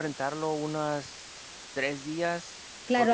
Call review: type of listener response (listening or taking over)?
taking over